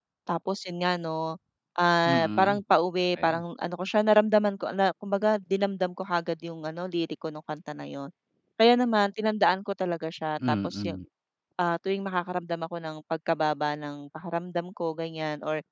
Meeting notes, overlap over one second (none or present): none